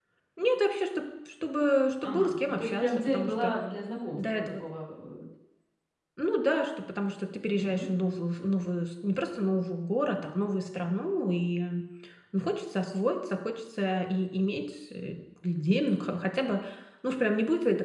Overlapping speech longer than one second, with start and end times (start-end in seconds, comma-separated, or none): 2.0-3.5